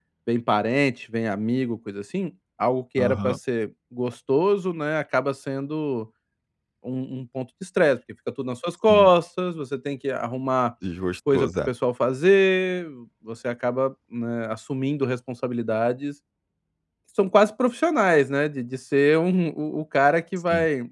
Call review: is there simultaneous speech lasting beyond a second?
No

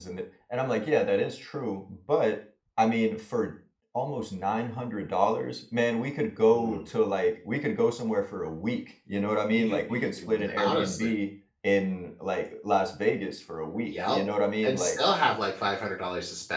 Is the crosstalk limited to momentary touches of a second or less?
No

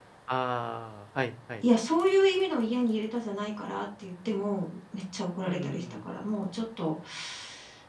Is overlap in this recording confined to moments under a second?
Yes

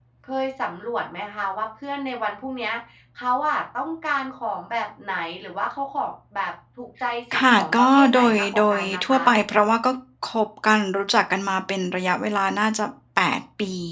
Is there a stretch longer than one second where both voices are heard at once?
Yes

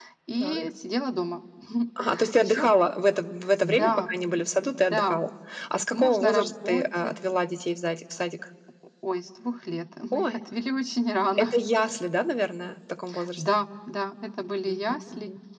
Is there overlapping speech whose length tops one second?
Yes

